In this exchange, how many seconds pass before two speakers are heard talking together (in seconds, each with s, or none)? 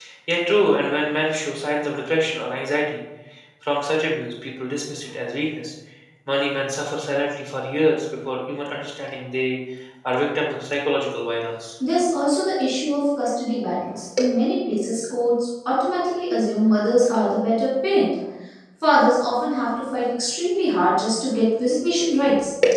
none